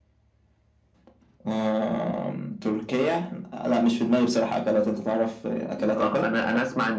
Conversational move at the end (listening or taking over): taking over